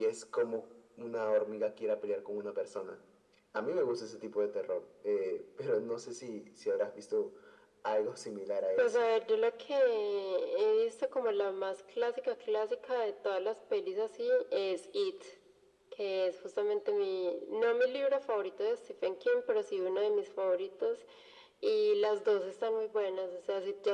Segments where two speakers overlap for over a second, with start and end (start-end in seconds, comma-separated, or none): none